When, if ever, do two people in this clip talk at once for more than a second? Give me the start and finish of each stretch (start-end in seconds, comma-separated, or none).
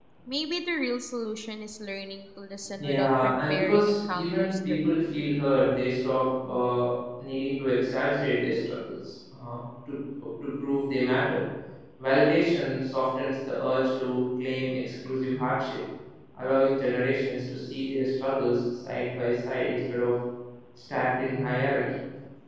2.8-4.9